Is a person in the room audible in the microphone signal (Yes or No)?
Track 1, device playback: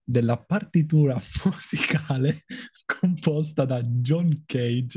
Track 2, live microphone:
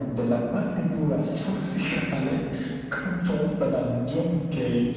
No